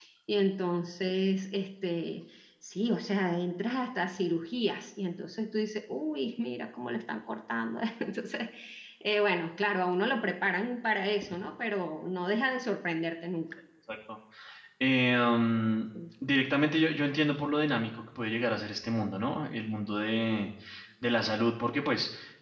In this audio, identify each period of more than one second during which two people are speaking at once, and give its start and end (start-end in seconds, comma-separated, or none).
none